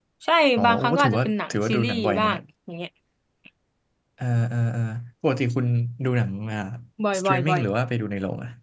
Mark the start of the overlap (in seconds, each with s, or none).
0.6 s